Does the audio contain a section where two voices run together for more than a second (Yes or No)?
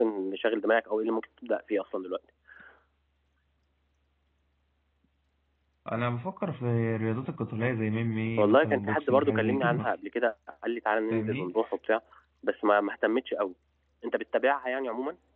Yes